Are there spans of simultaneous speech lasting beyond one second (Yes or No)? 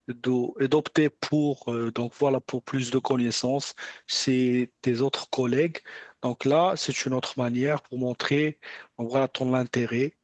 No